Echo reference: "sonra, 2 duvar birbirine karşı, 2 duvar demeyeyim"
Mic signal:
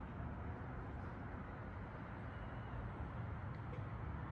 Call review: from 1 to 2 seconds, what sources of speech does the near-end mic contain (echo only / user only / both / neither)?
neither